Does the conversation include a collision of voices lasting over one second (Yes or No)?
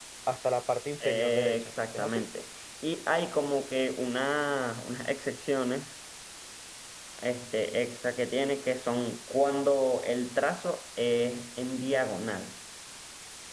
Yes